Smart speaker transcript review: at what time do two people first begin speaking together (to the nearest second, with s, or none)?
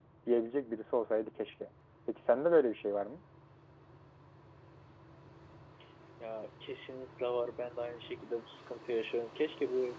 none